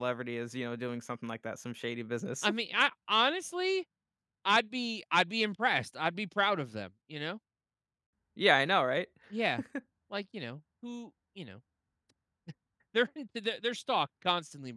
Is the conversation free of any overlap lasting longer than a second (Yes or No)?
Yes